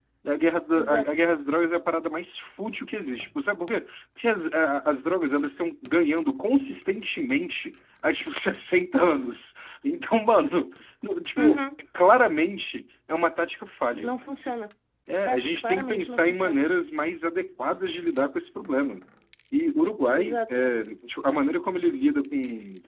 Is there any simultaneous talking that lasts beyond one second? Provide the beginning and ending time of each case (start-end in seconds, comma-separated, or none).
15.2-16.7